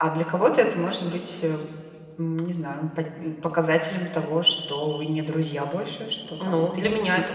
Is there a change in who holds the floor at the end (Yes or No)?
Yes